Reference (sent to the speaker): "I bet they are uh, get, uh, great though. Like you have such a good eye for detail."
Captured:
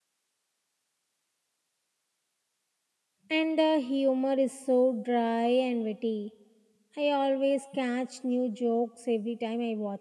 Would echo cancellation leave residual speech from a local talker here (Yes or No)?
Yes